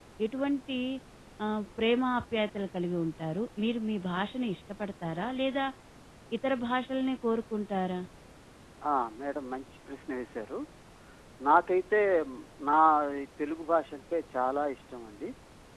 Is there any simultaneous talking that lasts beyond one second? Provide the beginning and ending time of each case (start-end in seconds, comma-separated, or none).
none